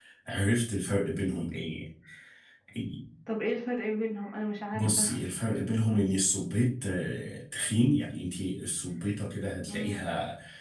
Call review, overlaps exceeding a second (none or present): none